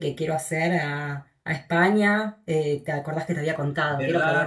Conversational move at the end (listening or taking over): taking over